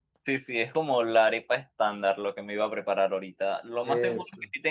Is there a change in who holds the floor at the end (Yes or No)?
No